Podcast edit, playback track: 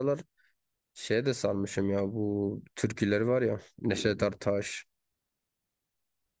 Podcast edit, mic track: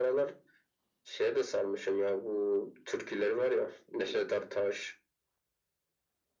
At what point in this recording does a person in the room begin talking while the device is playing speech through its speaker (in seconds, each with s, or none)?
none